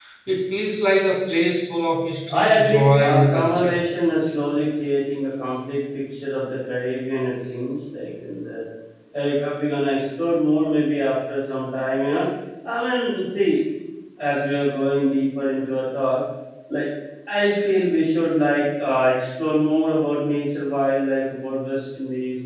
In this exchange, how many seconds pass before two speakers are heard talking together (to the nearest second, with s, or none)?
2 s